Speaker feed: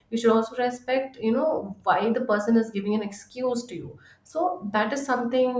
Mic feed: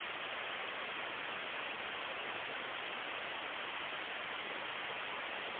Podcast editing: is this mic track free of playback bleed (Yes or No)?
Yes